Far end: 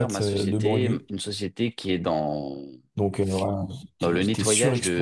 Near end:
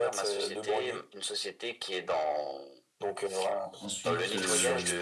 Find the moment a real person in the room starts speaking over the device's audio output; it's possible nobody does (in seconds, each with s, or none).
3.8 s